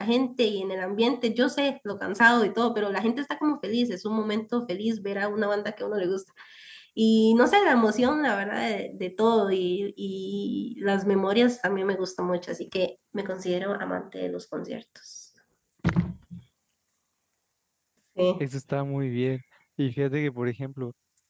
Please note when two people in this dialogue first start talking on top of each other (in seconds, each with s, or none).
none